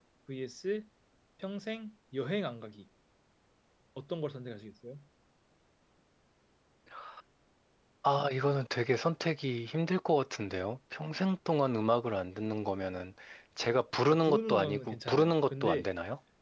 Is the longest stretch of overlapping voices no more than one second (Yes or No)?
No